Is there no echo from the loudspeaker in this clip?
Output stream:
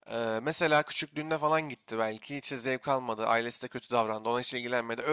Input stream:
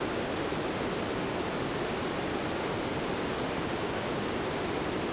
Yes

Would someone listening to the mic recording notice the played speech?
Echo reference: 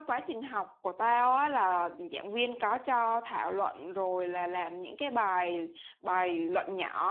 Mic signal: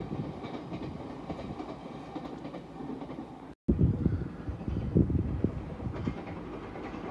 No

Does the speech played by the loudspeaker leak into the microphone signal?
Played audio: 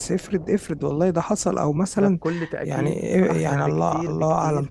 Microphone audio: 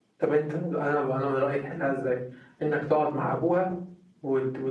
No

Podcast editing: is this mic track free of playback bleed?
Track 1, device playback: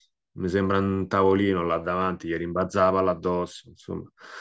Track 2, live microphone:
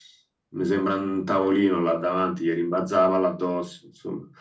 No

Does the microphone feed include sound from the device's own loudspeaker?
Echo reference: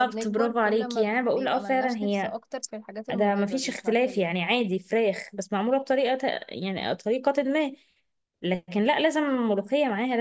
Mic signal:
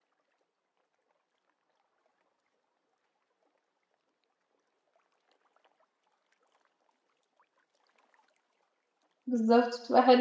No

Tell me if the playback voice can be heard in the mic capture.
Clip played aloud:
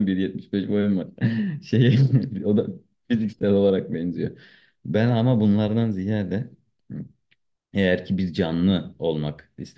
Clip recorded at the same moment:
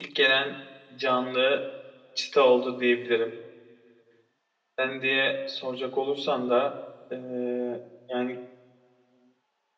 No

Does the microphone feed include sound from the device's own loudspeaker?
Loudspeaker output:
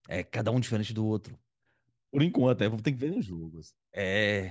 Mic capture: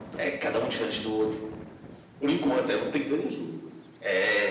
Yes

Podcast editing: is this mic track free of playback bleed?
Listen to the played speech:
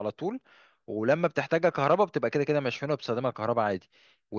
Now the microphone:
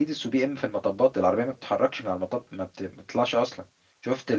Yes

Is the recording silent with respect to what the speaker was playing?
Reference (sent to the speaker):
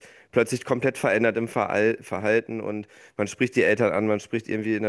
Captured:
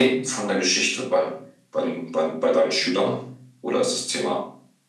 Yes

